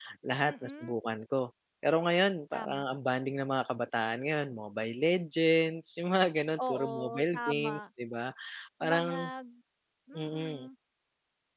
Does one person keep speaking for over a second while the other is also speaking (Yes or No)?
Yes